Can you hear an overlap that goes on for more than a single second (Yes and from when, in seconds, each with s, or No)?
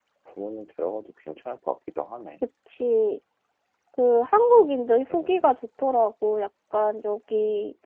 No